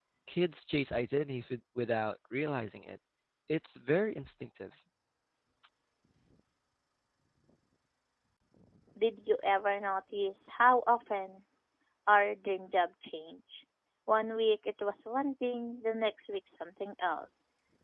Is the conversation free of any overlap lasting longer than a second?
Yes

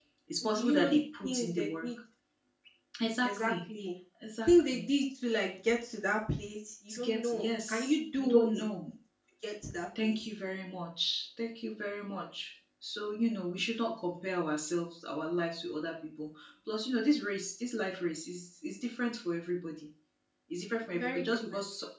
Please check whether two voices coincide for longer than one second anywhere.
Yes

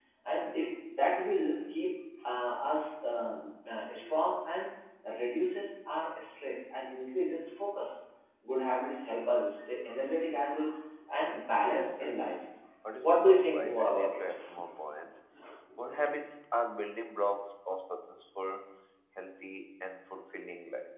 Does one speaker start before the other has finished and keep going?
Yes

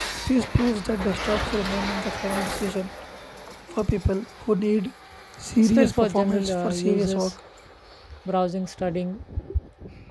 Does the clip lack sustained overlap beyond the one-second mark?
No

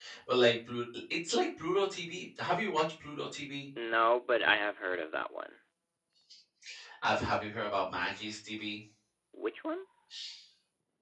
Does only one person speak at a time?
Yes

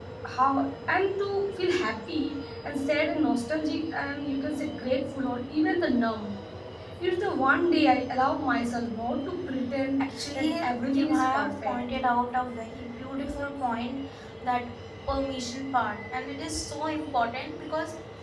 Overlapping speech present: Yes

